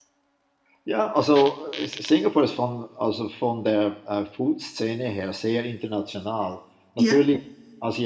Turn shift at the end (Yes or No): No